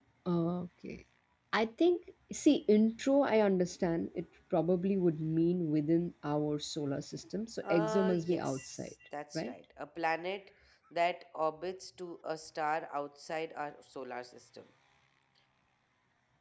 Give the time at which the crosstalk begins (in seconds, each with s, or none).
7.6 s